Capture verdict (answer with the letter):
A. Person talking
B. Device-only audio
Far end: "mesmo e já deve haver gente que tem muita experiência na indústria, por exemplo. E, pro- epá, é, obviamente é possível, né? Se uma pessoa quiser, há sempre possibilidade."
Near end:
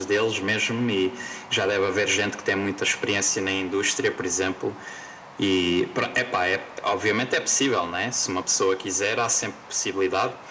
B